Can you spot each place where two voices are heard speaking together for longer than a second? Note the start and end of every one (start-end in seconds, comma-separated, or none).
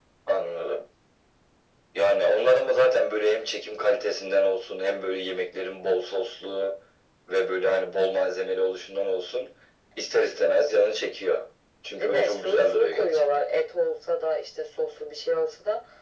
11.9-13.4